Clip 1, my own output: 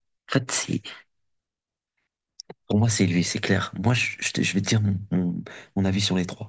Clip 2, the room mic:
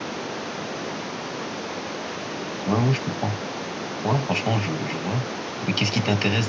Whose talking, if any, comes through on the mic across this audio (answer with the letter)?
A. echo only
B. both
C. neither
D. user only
D